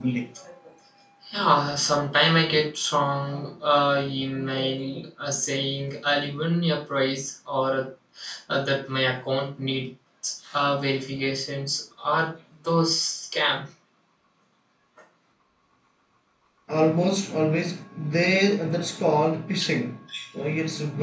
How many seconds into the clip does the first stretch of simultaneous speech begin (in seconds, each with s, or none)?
none